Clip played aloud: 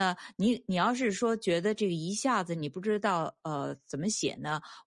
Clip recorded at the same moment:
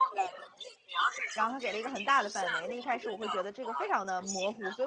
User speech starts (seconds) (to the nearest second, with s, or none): 1 s